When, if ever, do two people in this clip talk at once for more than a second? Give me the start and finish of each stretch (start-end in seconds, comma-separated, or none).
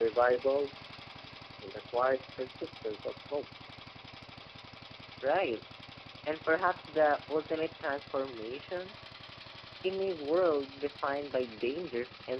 none